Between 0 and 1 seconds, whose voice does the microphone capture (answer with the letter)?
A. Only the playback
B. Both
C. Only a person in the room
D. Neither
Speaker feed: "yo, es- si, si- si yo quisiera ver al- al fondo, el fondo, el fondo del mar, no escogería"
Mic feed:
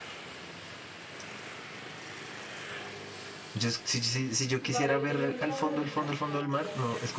D